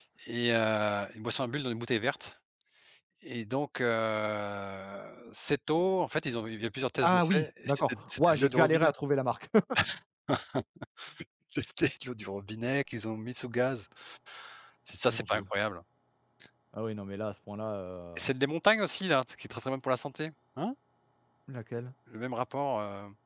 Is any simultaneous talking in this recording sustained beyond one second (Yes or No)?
Yes